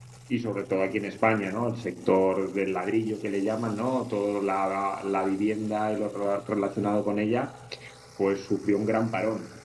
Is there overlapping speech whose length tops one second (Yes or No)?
No